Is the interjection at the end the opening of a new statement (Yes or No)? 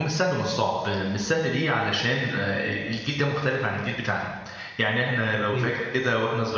No